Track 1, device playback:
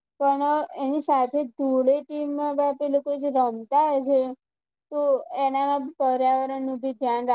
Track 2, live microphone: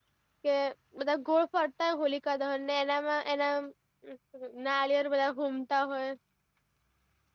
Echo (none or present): none